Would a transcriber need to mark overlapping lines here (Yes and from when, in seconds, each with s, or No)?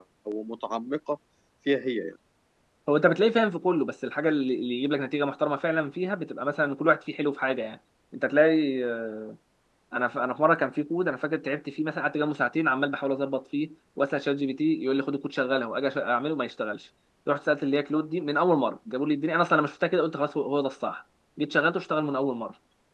No